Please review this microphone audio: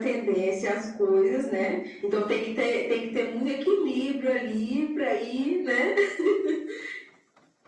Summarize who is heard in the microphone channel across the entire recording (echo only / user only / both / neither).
echo only